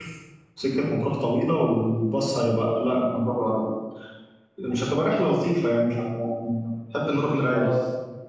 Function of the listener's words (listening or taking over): taking over